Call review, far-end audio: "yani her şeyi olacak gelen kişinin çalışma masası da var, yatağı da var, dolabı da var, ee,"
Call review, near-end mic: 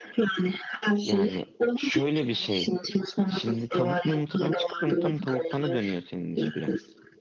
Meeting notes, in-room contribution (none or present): present